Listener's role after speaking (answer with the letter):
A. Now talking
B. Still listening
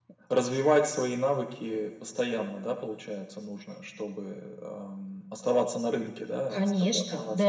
A